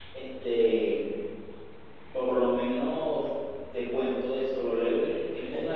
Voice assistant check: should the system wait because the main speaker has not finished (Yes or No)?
Yes